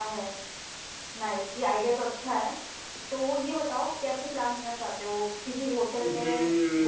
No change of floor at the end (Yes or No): No